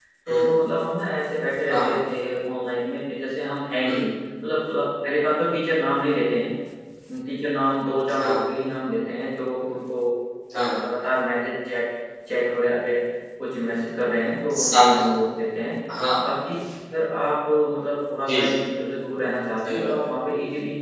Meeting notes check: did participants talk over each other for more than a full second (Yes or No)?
No